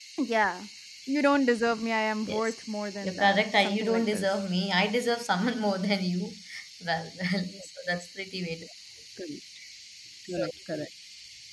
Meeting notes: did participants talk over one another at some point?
Yes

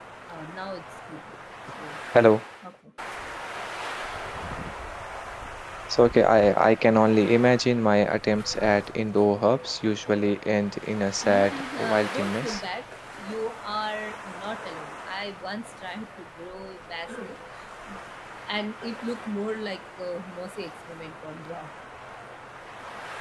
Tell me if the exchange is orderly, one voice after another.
No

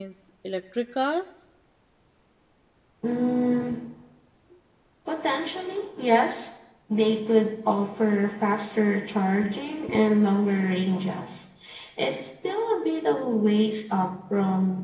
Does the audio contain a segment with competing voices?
No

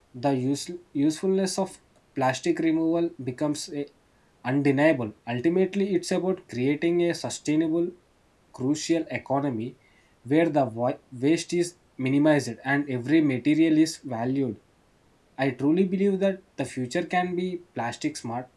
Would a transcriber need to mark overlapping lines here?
No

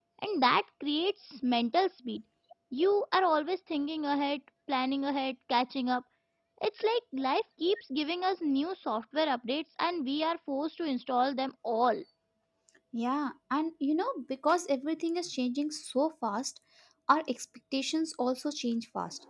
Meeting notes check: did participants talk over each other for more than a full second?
No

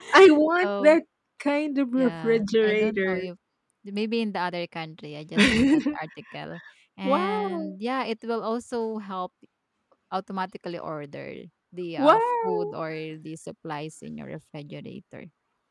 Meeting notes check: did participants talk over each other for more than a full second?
Yes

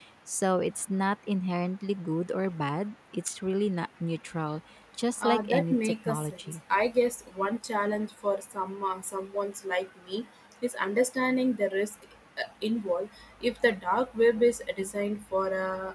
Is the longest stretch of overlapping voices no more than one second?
No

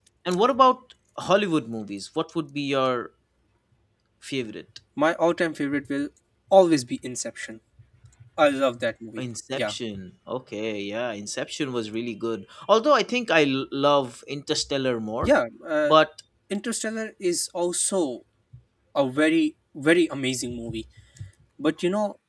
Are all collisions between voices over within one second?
Yes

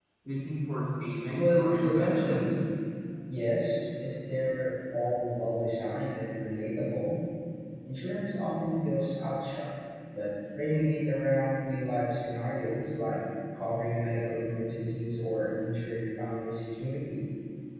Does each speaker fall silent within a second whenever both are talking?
No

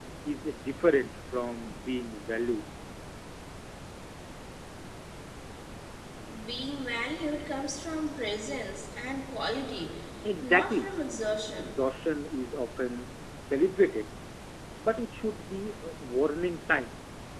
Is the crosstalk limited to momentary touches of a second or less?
Yes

